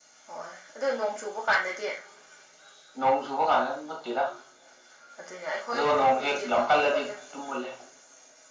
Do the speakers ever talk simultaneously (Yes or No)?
Yes